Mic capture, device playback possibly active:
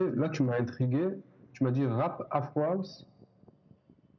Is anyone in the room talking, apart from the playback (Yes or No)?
No